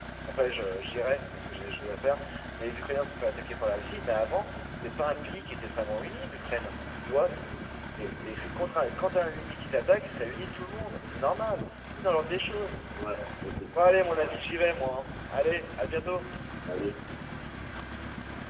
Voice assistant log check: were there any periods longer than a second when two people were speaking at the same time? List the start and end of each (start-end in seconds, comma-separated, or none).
none